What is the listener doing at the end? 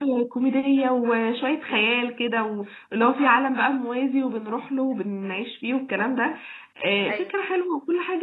listening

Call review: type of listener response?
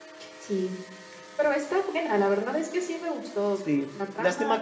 taking over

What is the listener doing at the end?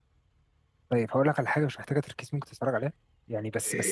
listening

